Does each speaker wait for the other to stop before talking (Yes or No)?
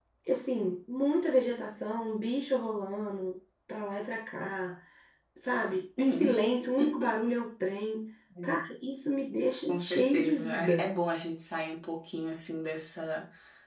No